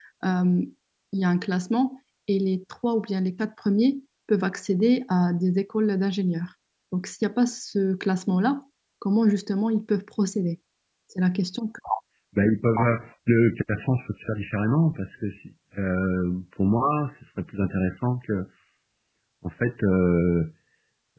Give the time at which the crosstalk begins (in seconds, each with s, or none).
none